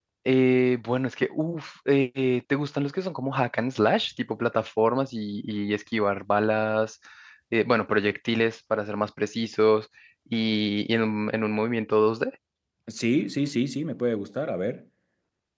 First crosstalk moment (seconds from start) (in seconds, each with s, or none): none